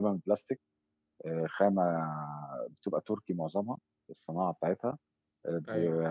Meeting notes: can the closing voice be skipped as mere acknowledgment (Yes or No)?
Yes